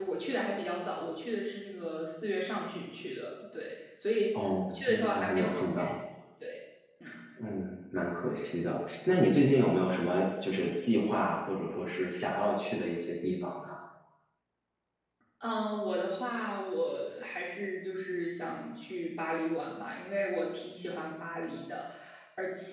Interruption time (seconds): 4.3 s

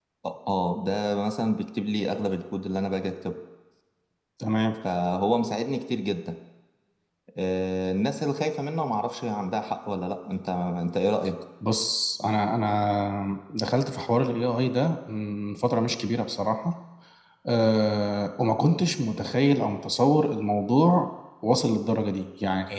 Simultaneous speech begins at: none

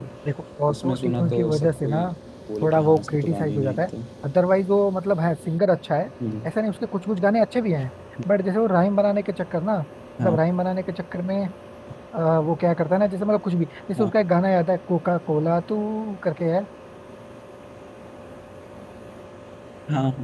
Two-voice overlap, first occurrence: 0.7 s

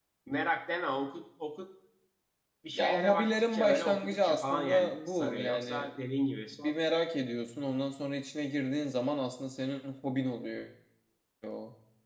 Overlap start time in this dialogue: 2.8 s

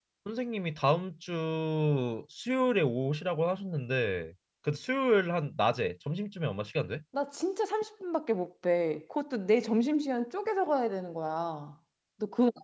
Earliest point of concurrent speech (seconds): none

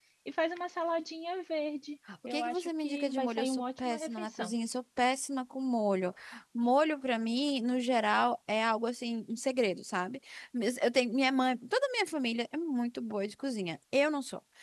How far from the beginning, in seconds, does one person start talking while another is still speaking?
2.1 s

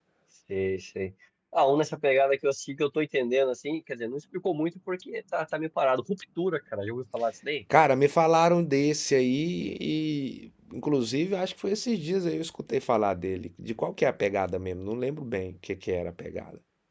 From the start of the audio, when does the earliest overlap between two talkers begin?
none

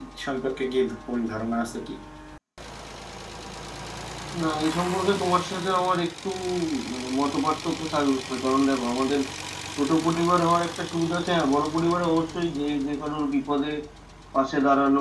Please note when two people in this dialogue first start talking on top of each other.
none

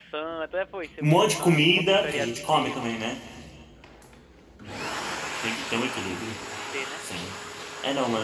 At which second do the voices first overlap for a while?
1.0 s

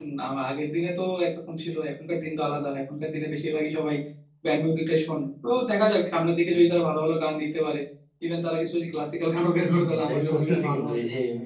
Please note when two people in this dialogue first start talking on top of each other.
9.6 s

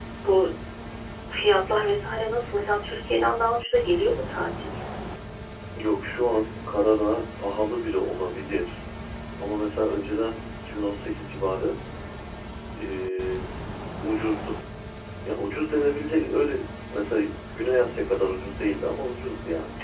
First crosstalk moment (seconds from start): none

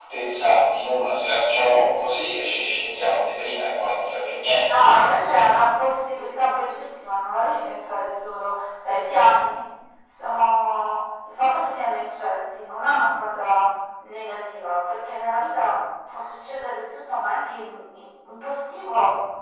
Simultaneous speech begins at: none

